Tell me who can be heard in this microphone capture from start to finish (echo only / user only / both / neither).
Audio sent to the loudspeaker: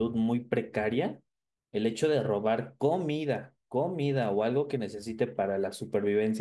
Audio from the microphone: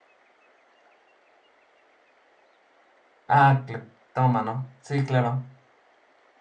user only